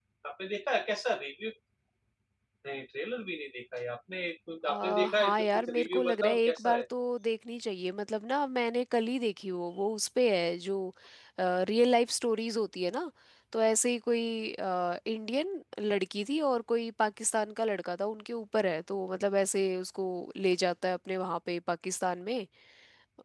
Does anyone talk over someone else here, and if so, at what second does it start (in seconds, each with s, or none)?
4.7 s